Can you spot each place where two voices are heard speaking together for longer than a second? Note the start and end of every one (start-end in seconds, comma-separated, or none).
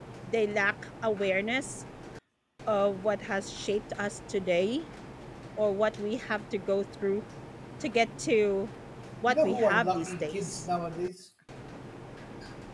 9.3-10.6